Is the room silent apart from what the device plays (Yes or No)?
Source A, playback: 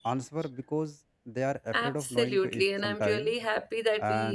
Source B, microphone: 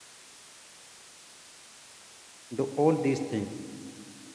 No